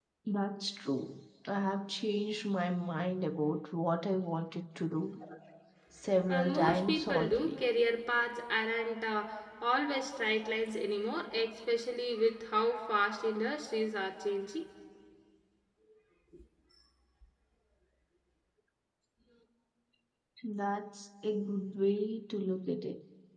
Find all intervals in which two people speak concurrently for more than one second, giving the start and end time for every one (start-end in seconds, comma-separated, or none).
6.3-7.6